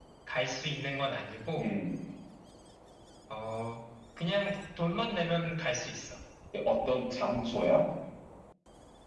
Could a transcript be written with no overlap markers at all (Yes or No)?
Yes